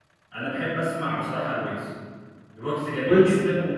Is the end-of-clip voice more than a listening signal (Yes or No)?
No